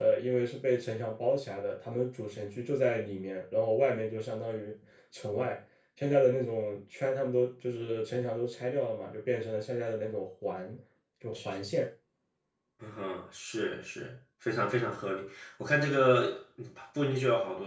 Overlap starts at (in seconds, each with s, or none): none